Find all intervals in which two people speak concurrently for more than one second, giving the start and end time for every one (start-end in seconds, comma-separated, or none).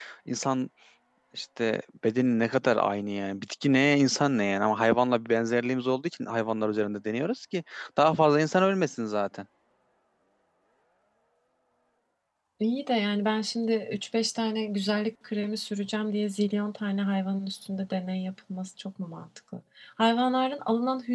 none